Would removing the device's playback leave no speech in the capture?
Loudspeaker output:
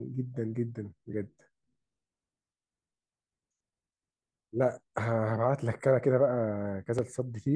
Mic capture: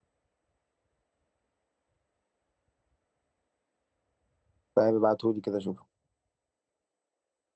No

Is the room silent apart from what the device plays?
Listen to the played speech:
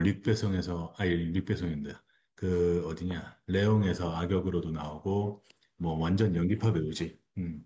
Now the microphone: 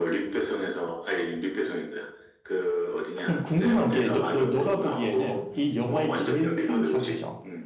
No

